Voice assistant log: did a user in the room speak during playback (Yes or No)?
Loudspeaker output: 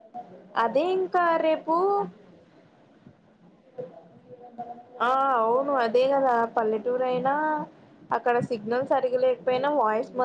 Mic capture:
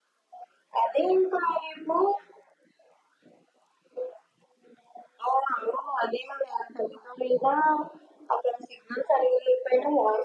No